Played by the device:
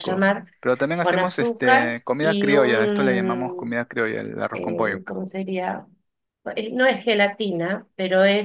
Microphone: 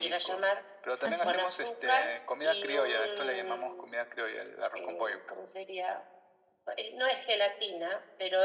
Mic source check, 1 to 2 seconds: both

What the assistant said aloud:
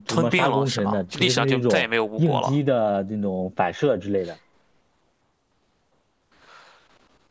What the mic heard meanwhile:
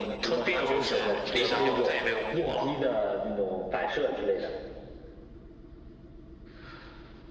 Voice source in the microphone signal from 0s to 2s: both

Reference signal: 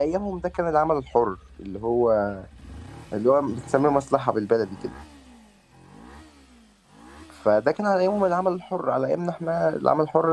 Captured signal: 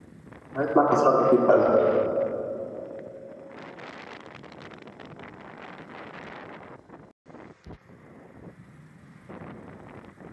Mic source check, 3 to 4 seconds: neither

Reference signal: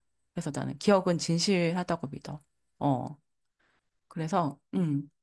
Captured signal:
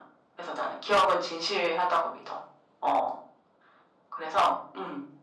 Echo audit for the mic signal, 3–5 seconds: echo only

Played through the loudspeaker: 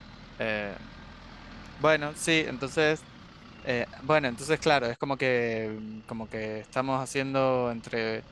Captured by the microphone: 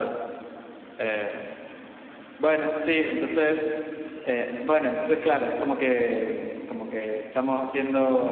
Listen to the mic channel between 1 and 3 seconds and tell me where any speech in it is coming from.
echo only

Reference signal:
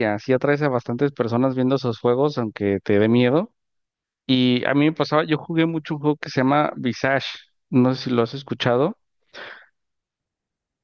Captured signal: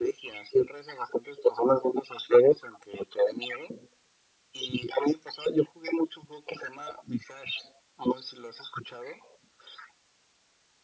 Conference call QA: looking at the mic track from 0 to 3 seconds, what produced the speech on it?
echo only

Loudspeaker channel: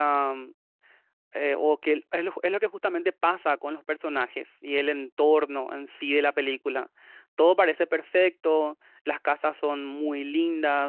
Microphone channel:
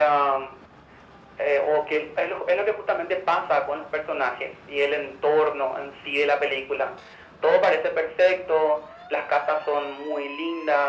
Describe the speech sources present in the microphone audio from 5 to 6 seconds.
echo only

